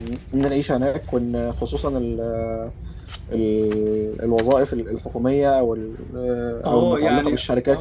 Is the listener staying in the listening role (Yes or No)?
No